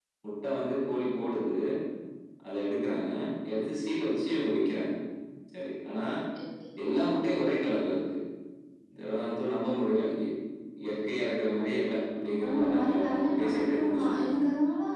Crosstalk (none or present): present